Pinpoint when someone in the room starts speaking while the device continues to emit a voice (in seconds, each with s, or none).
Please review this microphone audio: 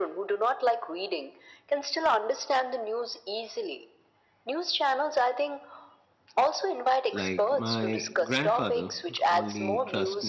7.1 s